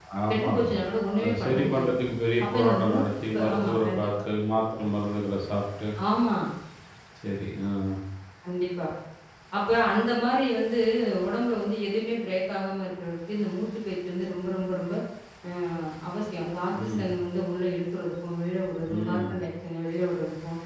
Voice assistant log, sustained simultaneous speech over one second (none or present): present